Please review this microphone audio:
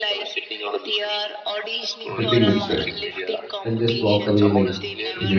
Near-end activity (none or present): present